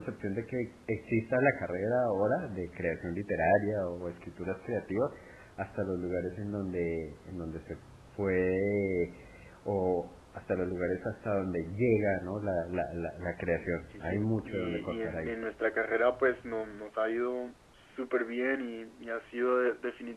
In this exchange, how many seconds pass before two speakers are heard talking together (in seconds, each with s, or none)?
13.5 s